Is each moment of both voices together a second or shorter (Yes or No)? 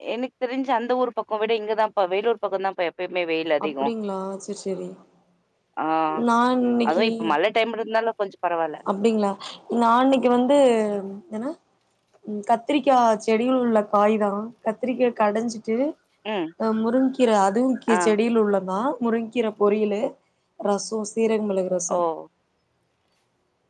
Yes